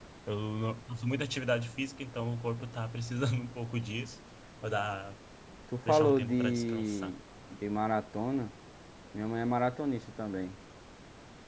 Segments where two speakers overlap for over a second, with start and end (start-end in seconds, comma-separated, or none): 5.8-7.1